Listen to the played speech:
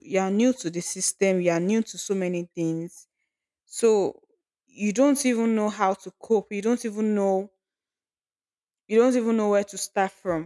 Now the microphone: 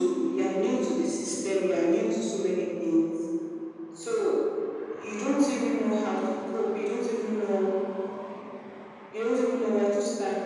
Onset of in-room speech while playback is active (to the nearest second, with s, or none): none